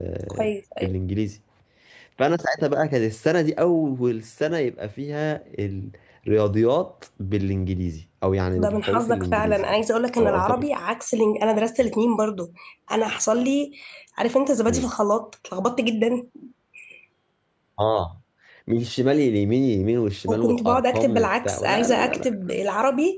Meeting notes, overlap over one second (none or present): present